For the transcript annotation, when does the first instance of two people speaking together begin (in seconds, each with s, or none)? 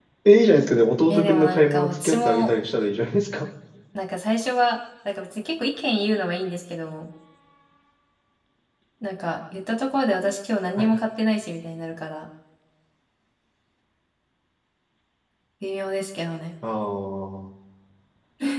1.1 s